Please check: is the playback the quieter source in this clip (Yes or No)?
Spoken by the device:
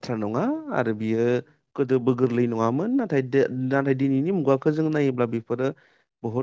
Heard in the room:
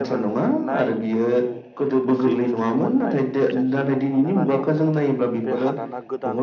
No